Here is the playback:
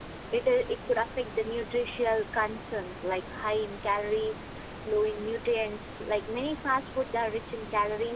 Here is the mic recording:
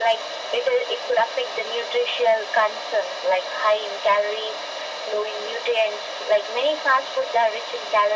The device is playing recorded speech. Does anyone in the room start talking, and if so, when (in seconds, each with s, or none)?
none